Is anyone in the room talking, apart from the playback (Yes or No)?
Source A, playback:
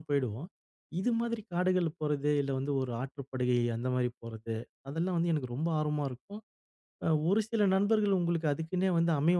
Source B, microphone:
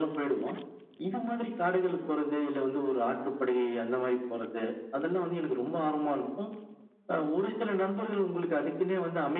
No